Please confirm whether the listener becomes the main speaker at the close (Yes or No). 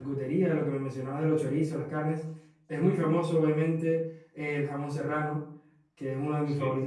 No